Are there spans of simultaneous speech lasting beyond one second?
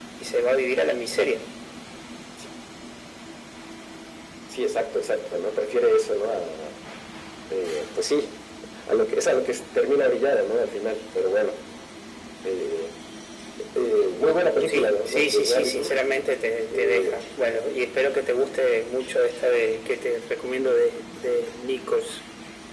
Yes, from 14.7 s

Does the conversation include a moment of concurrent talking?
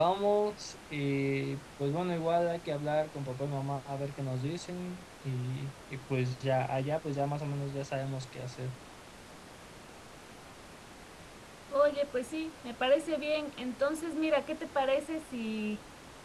No

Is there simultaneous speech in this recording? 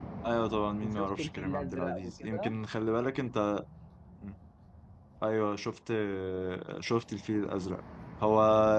Yes, from 0.8 s

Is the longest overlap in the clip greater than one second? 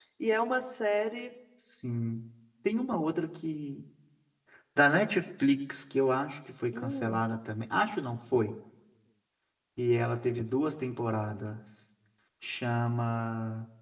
No

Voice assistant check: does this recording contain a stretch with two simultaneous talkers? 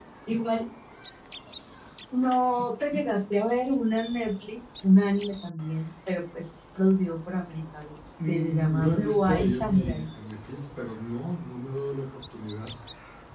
Yes, from 8.2 s

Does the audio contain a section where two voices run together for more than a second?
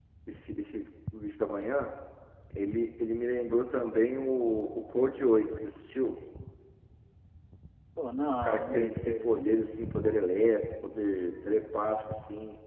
Yes, from 8.2 s

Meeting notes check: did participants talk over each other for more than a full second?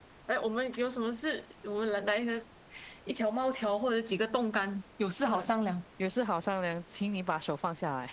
No

